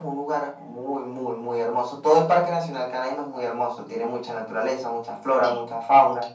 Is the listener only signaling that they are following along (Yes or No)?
Yes